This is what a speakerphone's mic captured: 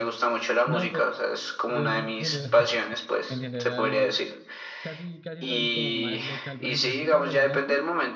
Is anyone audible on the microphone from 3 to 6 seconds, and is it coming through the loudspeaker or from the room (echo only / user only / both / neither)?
both